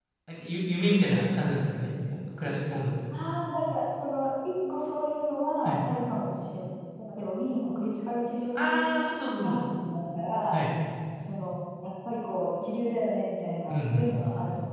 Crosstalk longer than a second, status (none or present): none